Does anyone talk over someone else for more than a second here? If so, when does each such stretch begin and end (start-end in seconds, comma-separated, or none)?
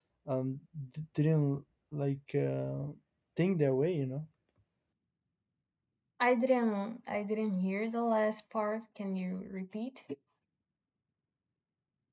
none